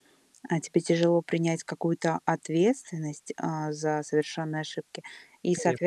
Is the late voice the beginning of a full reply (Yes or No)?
No